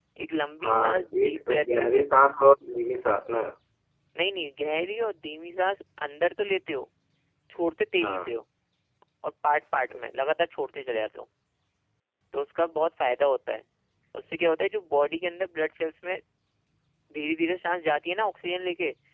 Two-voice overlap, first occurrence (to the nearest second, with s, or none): 1 s